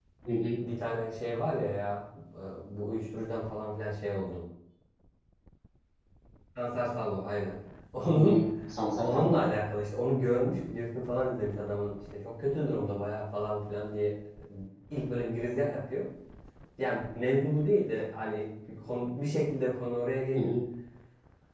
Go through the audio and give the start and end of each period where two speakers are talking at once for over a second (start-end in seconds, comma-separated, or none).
none